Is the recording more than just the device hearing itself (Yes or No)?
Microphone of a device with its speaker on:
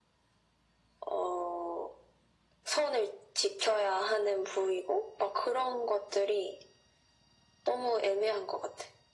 No